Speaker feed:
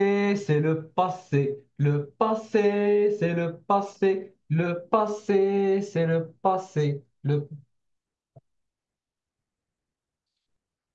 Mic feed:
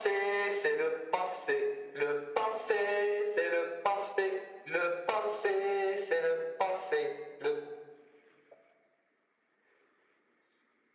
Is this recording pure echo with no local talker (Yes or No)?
Yes